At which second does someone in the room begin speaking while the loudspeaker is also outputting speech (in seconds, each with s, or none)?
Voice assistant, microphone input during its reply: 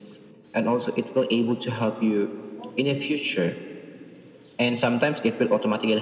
none